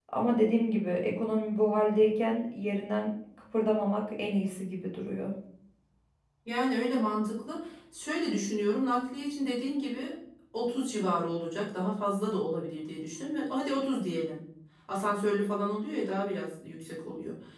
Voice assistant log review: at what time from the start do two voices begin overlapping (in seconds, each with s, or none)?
none